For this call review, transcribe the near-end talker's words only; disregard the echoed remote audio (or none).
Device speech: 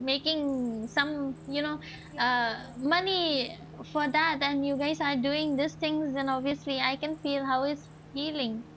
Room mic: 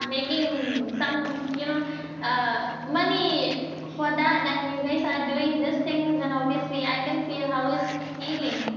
none